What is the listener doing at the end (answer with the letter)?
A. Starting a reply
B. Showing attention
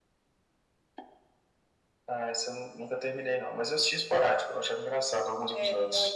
A